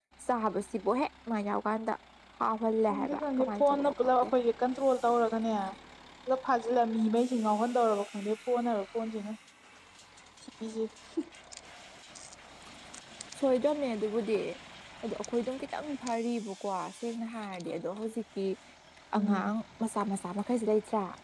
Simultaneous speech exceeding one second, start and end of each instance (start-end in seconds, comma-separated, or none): 2.9-4.3